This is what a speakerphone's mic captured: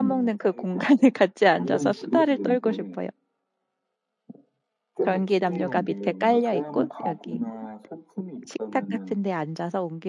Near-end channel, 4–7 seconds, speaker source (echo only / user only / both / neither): both